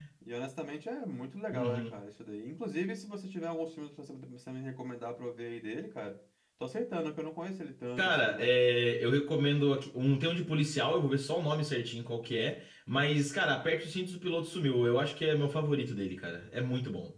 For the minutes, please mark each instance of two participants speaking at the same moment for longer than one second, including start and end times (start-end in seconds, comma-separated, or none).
none